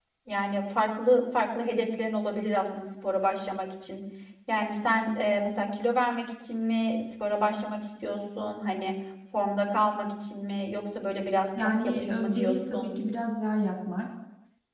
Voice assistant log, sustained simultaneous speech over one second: present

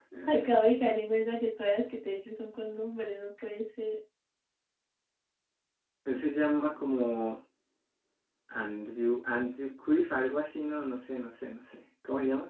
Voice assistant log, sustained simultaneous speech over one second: none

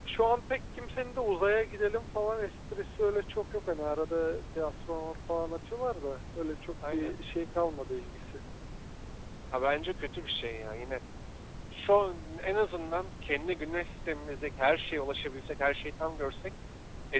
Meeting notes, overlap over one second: none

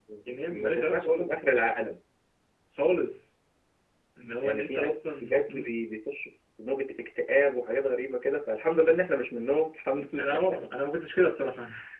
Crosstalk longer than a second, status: present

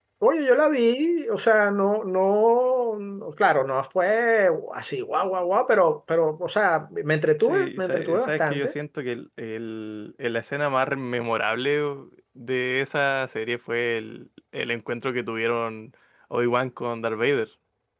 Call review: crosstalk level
present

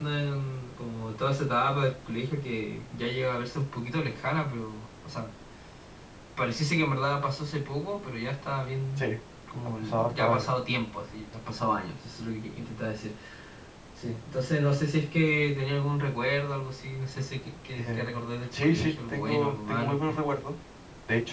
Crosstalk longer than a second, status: present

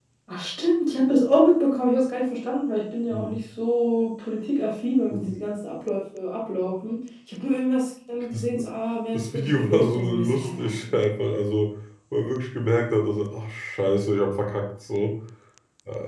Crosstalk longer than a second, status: present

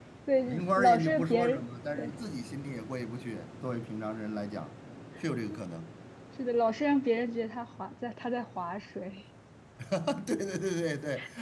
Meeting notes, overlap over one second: present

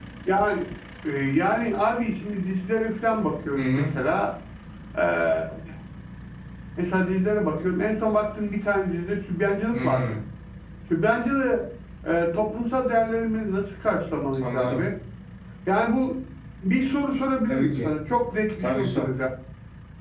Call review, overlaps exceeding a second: none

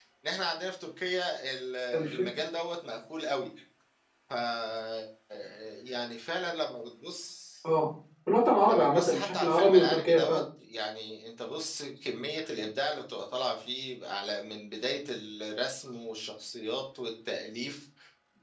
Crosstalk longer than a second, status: present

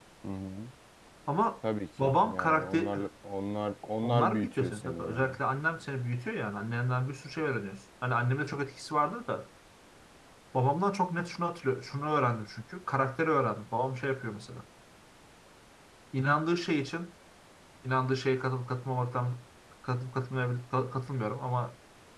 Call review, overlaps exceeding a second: present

